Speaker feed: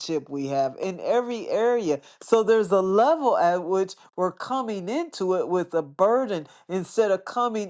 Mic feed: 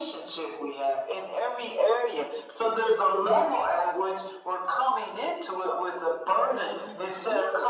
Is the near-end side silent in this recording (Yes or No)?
No